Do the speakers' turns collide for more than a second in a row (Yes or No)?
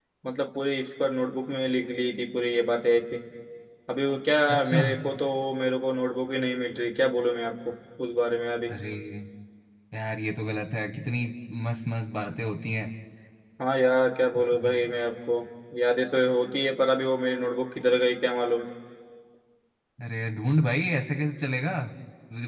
No